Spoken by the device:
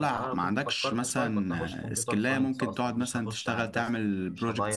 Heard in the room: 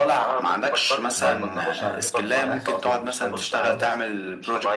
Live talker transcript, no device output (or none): آه، ما تشع مبقاش في امبيدد خالص